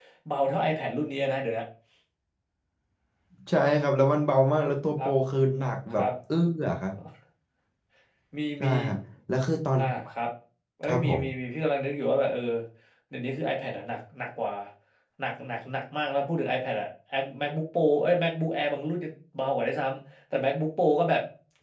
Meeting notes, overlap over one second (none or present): none